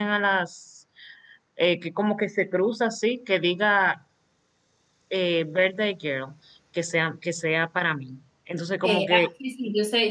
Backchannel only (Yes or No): No